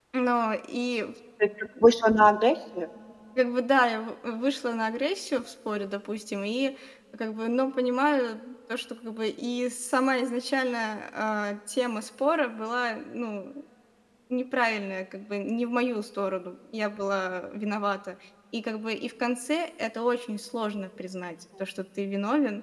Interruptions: none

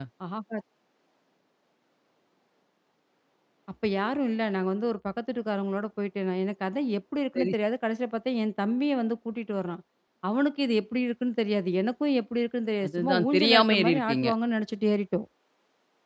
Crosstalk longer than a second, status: present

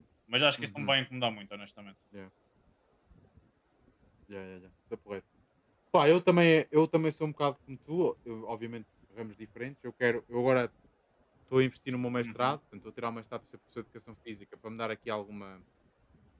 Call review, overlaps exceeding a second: none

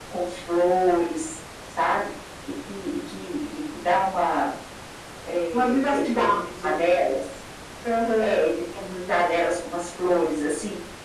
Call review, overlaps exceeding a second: present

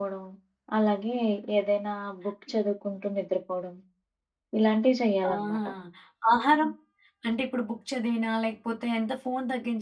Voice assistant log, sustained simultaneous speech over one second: none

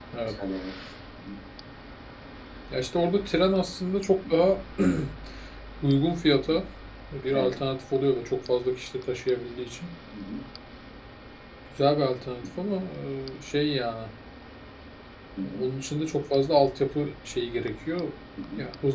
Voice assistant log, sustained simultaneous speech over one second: none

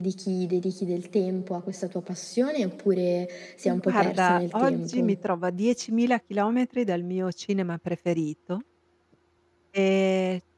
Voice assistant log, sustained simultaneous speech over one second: present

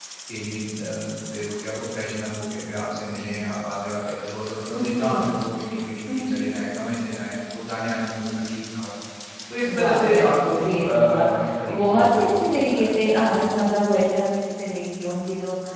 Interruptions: present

